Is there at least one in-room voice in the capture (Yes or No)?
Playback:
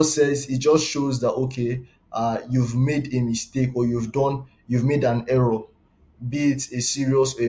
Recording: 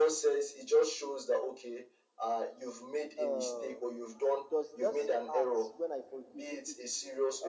Yes